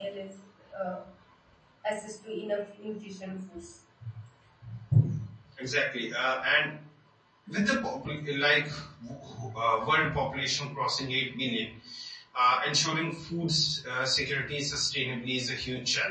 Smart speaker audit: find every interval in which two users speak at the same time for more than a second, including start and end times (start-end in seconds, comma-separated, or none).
none